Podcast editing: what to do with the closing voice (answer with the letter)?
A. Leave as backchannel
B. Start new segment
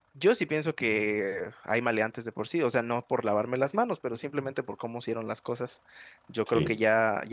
A